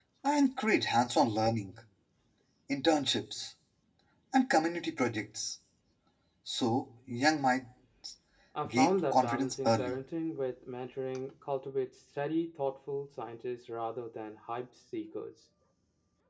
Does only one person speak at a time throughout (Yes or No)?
No